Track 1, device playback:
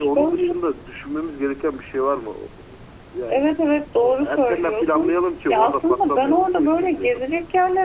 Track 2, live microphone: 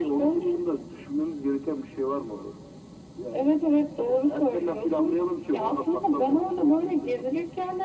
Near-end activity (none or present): none